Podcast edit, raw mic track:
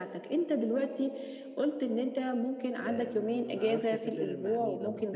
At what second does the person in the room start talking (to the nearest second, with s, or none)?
3 s